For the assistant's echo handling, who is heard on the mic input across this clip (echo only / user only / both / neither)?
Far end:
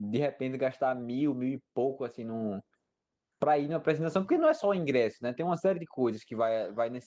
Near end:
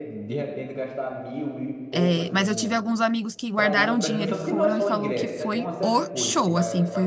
both